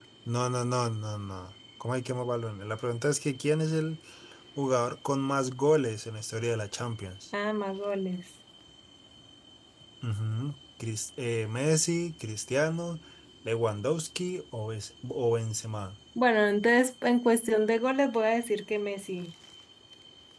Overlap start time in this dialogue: none

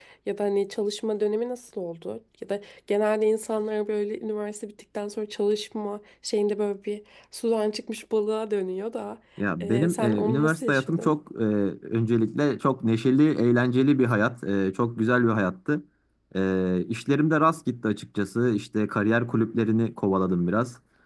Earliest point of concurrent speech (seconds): 10 s

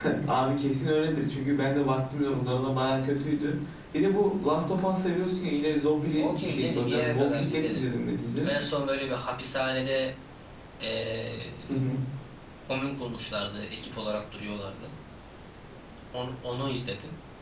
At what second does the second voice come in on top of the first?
6 s

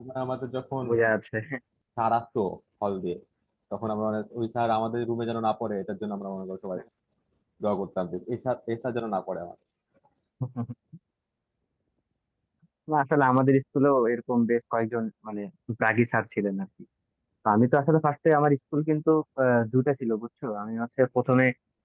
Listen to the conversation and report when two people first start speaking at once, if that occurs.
none

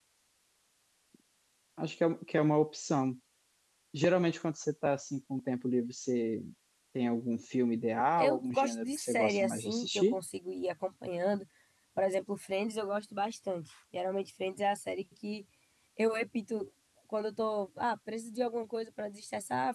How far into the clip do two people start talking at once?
8 s

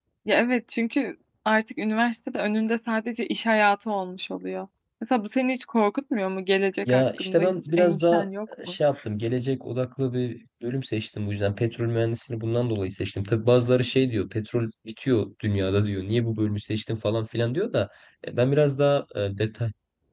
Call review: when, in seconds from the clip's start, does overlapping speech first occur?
7 s

